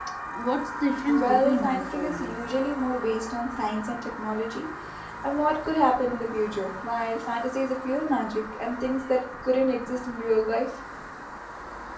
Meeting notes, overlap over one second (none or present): present